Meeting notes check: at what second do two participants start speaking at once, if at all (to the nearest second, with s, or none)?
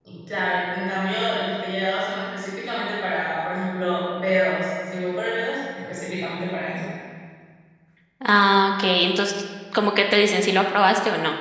none